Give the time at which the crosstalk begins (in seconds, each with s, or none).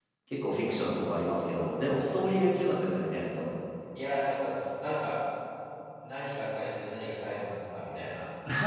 none